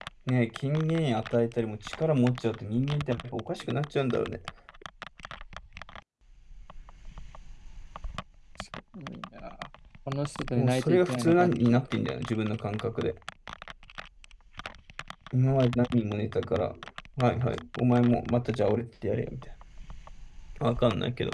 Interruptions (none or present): present